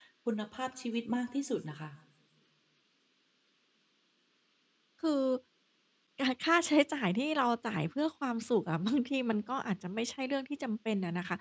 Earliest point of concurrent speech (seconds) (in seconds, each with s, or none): none